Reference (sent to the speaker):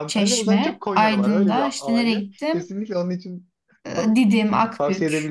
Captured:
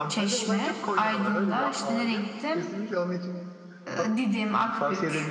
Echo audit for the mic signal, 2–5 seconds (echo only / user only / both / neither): echo only